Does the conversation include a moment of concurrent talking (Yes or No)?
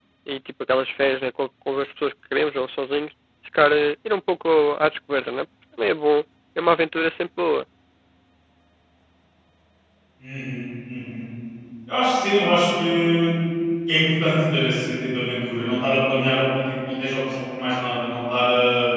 No